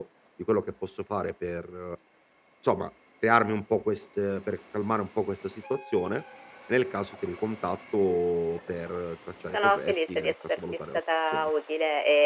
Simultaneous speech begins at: 10 s

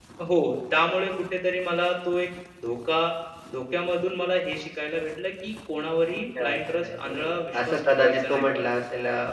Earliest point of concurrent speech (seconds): 6 s

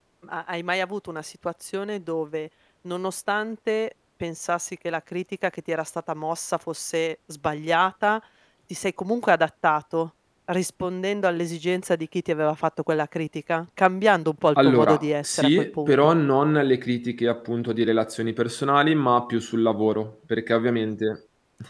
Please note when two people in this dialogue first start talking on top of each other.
15 s

